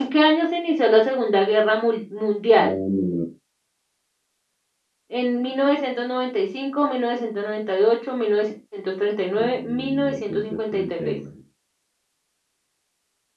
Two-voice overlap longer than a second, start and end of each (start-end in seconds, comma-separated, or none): 9.4-11.2